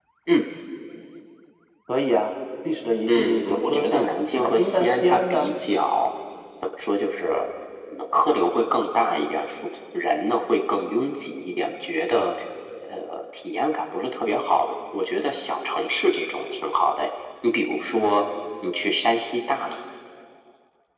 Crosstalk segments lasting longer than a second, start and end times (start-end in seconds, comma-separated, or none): 3.1-5.5